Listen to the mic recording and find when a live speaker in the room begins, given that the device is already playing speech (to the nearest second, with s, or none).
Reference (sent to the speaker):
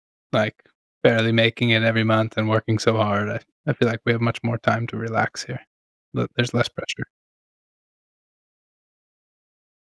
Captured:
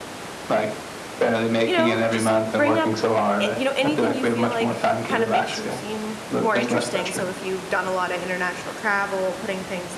2 s